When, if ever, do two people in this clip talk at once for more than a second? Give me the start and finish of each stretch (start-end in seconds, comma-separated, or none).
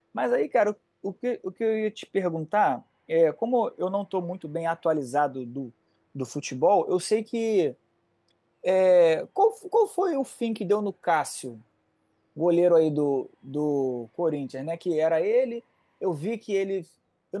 none